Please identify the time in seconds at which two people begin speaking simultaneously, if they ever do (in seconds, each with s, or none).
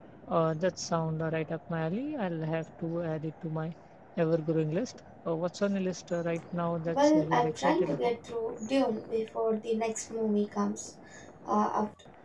6.8 s